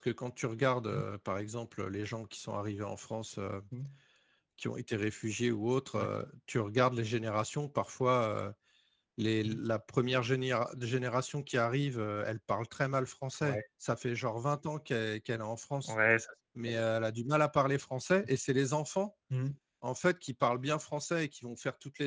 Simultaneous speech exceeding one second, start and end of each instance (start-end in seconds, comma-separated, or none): none